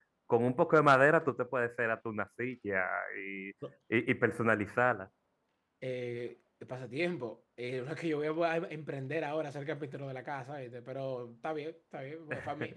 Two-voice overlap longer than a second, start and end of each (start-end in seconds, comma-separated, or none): none